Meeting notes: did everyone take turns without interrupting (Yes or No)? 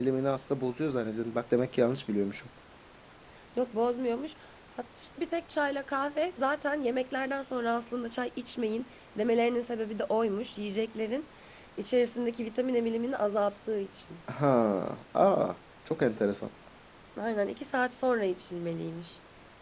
Yes